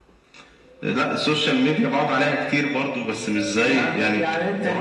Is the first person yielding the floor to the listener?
Yes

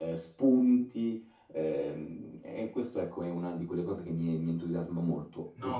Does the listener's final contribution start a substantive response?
Yes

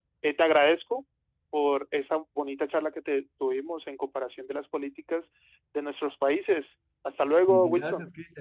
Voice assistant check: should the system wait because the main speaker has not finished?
No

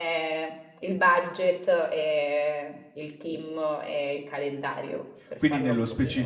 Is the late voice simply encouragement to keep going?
No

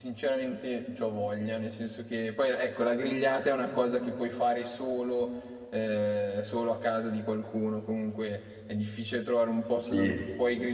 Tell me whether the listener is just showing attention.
Yes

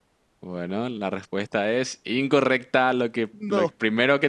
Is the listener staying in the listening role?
Yes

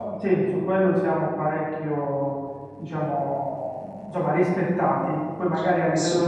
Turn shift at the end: No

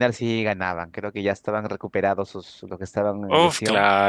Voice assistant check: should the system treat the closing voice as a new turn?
Yes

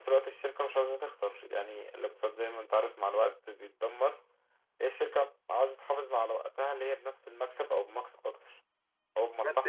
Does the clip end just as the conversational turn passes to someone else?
Yes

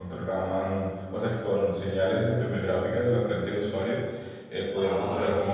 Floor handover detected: No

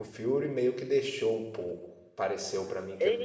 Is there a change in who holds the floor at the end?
Yes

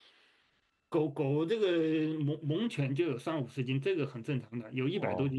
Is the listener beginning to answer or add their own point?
Yes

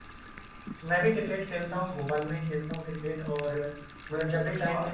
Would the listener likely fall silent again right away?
Yes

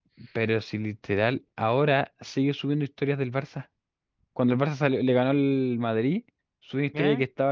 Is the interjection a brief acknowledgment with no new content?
Yes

